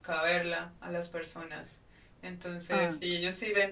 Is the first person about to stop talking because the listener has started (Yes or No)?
No